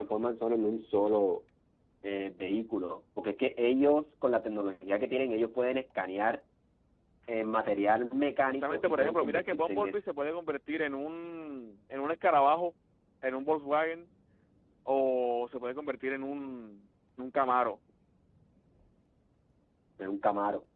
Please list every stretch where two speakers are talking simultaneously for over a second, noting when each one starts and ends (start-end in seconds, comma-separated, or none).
8.5-9.9